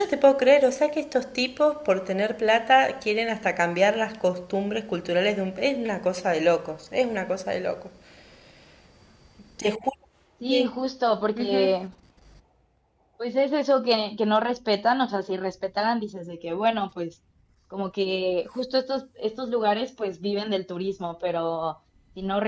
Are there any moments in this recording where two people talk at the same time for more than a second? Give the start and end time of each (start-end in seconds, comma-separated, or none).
none